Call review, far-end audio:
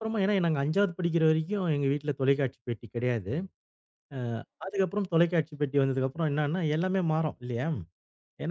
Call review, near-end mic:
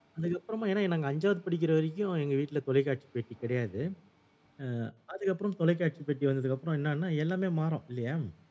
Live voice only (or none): none